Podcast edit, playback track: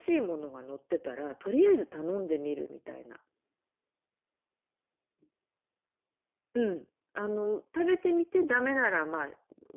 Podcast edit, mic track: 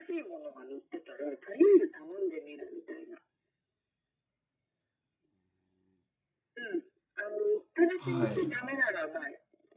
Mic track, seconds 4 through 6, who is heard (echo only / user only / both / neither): neither